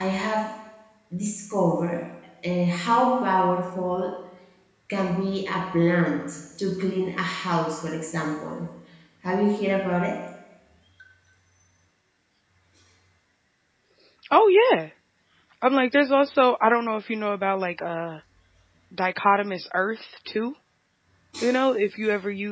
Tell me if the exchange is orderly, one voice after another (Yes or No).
Yes